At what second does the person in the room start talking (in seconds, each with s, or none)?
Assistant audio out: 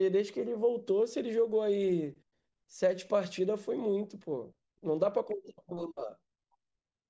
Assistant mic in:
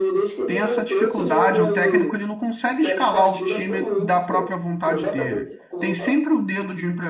0.5 s